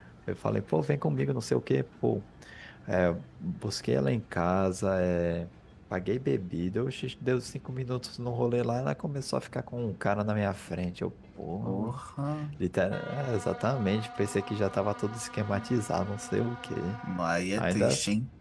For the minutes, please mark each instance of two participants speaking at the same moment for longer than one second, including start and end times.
none

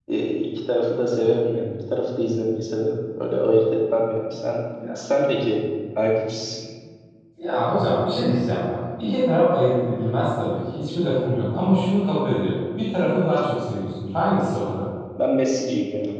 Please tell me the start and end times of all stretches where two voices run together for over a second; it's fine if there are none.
none

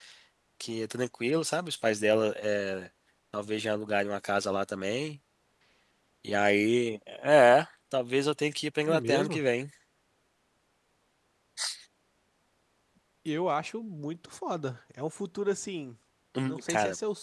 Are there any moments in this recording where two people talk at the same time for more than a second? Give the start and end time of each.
none

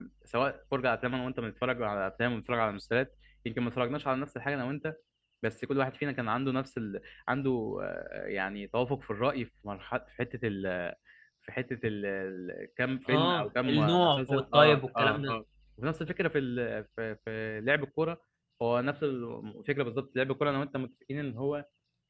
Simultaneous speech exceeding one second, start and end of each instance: 13.1-15.3

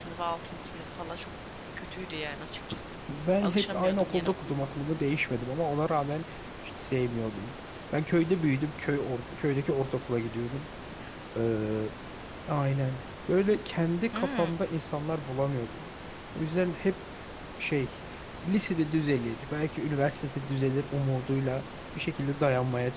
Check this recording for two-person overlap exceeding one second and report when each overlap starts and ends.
3.4-4.7

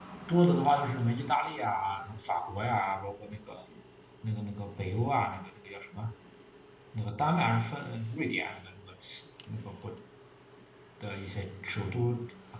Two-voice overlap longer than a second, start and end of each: none

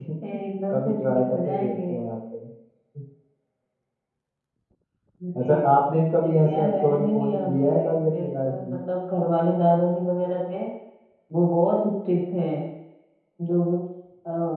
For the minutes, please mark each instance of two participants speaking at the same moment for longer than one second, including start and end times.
0.7-1.9, 6.2-8.8

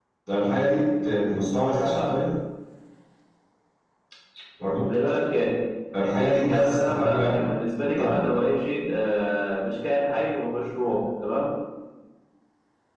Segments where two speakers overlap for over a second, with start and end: 6.2-7.4

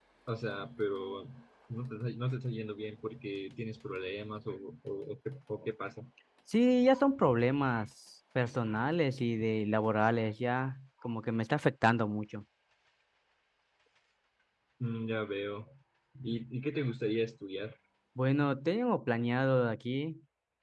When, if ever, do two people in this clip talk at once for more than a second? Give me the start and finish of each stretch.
none

